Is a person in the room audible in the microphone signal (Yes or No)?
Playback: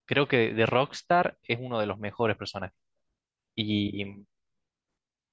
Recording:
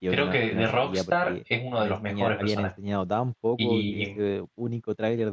Yes